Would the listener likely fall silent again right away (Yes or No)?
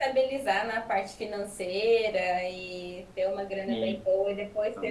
Yes